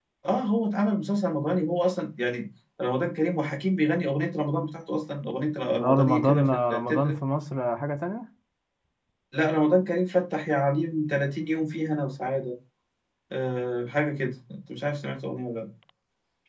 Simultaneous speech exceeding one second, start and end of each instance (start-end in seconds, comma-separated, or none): 5.7-7.2